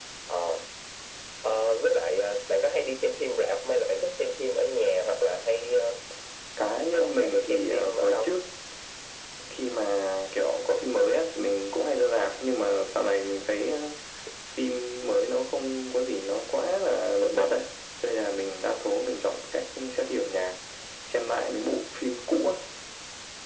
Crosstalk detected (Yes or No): Yes